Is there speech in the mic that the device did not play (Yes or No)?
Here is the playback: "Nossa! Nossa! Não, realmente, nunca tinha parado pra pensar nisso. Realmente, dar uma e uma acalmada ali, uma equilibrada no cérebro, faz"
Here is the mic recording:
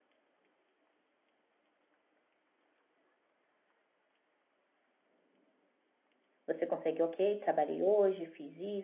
Yes